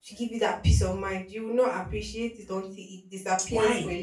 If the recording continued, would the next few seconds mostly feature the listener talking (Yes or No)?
Yes